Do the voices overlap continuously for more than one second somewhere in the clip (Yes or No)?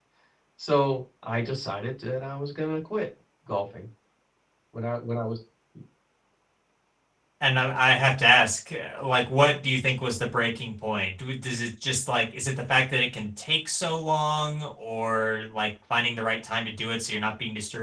No